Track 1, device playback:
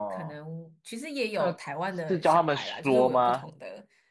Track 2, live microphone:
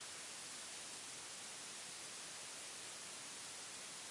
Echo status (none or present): none